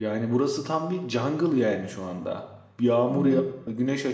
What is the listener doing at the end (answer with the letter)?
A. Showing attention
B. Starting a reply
A